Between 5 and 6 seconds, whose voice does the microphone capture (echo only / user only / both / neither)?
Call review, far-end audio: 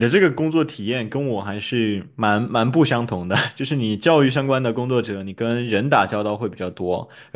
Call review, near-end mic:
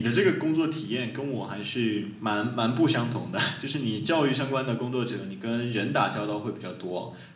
echo only